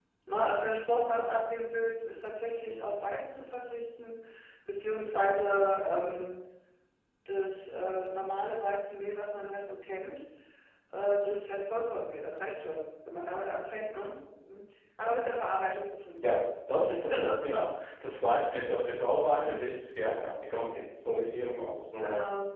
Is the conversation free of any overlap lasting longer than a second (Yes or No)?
Yes